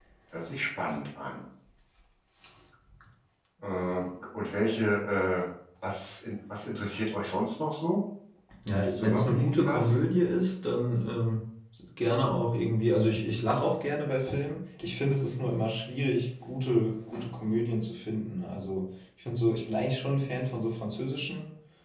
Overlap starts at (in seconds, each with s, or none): 8.7 s